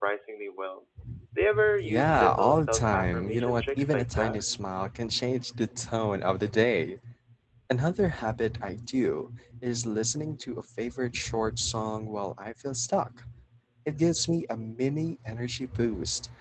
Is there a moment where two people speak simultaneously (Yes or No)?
Yes